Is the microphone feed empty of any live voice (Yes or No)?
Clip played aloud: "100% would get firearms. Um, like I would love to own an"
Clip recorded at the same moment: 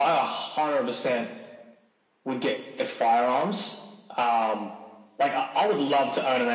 Yes